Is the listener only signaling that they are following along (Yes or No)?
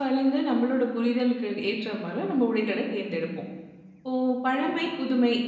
Yes